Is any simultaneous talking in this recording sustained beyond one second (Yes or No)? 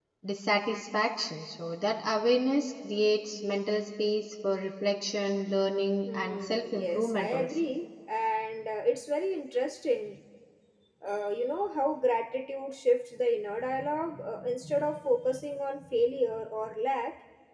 Yes